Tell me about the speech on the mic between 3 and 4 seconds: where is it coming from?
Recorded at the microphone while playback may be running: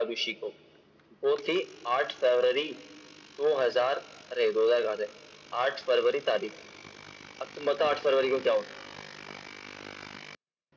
echo only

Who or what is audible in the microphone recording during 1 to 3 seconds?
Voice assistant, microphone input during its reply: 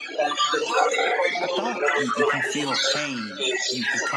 both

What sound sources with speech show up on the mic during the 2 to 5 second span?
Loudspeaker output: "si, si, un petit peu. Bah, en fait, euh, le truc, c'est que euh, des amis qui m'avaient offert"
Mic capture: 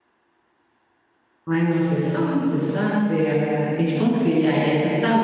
user only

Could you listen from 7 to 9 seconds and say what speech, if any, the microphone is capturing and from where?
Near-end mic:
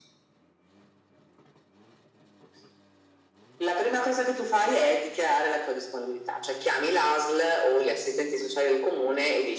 echo only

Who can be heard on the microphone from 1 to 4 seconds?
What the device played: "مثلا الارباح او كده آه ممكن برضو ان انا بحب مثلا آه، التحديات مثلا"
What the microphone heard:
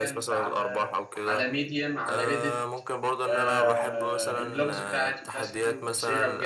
both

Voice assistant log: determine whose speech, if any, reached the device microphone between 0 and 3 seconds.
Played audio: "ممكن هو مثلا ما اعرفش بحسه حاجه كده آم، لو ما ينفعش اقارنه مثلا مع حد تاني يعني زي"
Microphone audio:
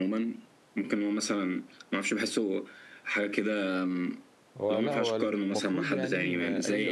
echo only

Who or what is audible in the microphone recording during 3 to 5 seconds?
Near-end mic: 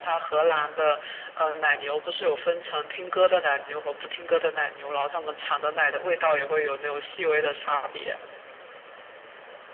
echo only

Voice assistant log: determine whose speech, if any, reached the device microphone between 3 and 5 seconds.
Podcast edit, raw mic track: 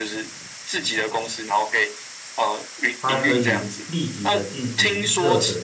both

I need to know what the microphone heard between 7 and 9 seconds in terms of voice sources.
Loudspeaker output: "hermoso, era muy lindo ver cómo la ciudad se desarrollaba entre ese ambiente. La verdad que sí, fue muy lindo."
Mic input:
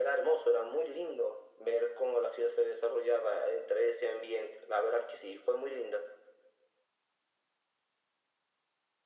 neither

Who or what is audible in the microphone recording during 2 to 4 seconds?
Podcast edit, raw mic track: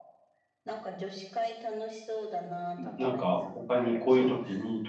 both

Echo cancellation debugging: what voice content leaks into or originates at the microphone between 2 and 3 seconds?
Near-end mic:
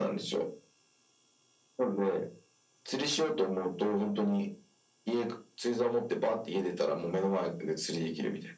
echo only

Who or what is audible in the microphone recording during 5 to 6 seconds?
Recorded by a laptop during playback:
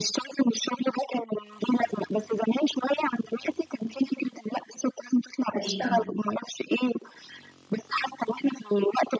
both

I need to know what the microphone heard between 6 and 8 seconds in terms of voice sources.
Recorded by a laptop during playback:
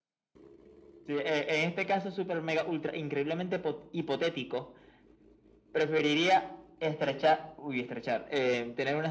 echo only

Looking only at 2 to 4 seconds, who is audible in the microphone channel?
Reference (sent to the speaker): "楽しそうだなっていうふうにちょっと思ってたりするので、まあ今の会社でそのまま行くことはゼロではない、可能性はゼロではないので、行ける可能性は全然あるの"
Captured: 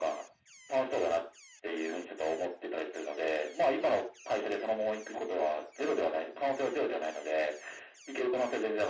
echo only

